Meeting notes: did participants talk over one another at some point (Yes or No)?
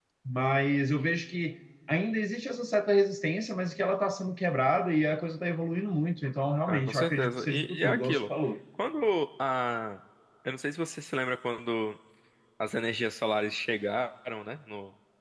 Yes